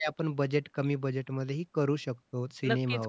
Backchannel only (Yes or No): No